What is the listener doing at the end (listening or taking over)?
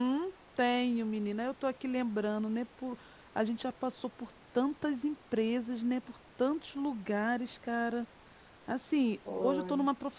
listening